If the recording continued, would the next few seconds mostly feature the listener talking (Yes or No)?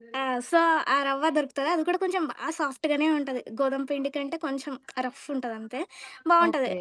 No